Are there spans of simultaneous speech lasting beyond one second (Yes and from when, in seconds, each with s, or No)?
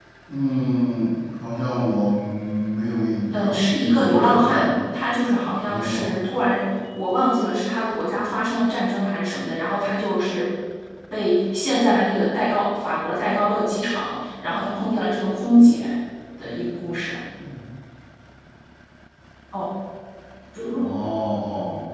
Yes, from 3.3 s